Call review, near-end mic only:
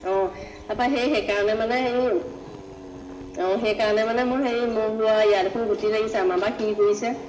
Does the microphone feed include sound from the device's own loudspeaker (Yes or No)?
Yes